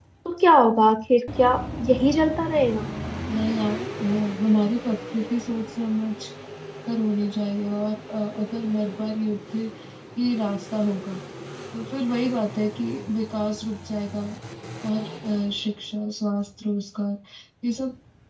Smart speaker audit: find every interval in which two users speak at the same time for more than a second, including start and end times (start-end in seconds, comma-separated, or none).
none